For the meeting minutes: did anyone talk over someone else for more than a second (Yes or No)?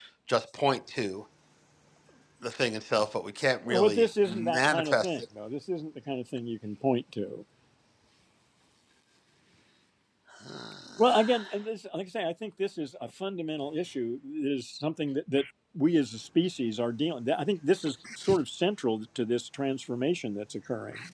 Yes